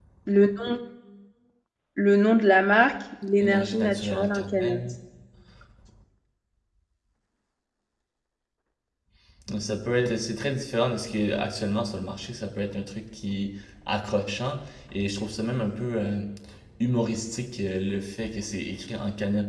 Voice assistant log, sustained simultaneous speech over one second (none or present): present